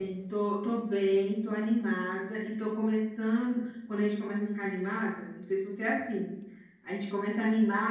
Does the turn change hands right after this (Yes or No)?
No